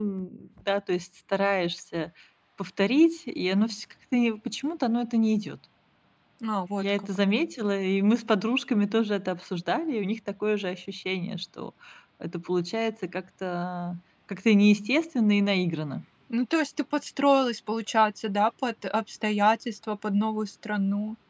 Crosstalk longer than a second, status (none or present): none